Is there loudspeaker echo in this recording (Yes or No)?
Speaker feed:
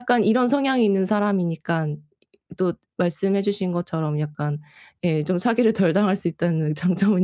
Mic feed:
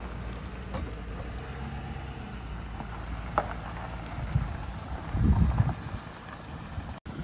No